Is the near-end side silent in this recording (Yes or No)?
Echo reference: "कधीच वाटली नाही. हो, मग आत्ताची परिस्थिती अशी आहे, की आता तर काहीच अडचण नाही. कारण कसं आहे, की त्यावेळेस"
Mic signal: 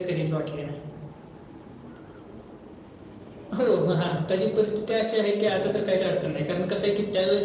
Yes